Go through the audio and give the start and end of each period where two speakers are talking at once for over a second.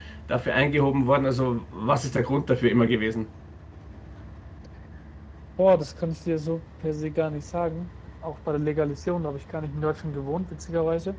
none

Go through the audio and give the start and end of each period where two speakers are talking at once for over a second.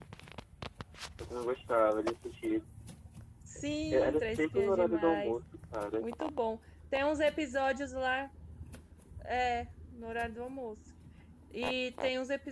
3.9-5.4

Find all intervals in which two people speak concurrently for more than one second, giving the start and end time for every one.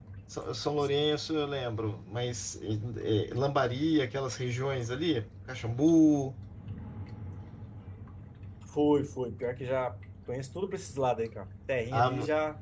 none

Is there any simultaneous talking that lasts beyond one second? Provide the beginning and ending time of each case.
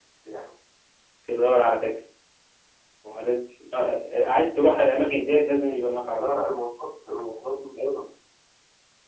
none

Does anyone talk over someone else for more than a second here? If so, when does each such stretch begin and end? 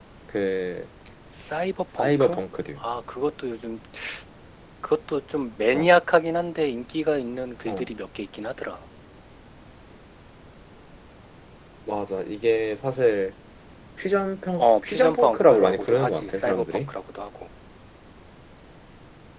14.6-16.9

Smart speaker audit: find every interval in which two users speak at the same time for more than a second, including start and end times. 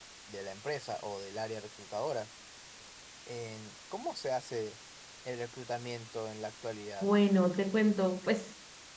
none

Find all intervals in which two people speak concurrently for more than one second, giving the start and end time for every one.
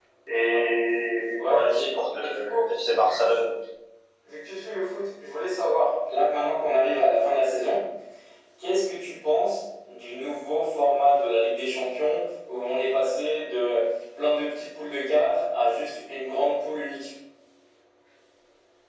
1.4-3.4

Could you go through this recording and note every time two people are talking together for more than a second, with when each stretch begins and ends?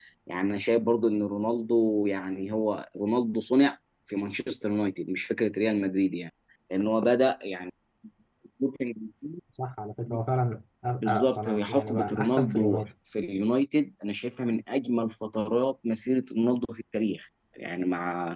11.0-12.8

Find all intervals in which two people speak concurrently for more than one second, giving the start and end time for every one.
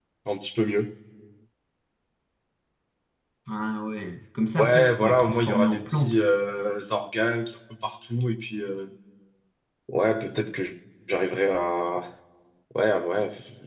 4.6-6.2

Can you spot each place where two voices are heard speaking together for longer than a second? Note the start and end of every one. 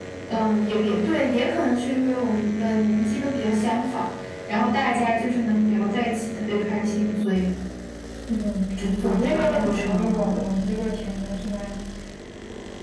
9.0-10.4

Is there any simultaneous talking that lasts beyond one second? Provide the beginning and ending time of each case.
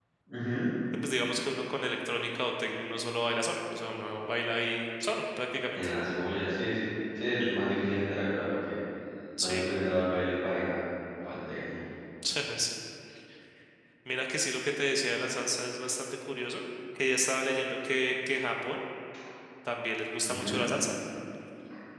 none

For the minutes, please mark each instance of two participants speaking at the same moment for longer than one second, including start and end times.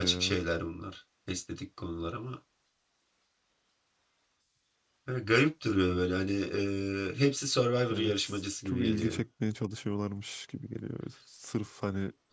7.9-9.2

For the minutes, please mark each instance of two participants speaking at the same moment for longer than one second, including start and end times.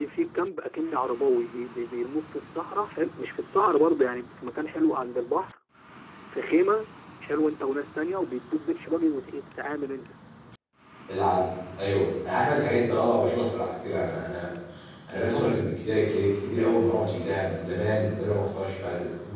none

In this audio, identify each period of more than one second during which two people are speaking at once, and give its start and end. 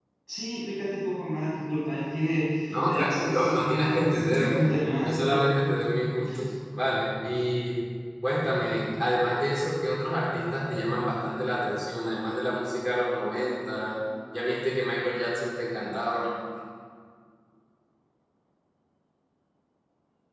2.9-4.6

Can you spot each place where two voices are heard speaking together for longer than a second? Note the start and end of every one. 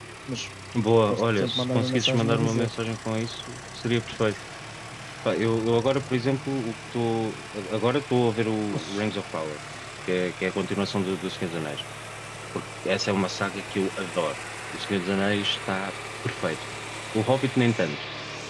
1.1-2.7

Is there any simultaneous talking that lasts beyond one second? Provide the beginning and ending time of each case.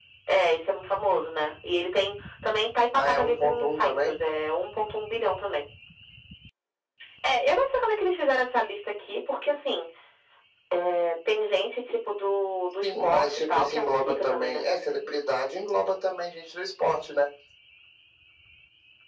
3.0-4.2, 12.8-14.6

